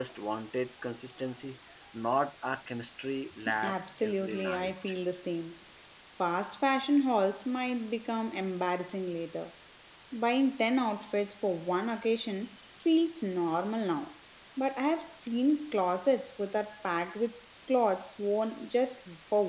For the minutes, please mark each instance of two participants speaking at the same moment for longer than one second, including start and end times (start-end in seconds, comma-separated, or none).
3.6-4.9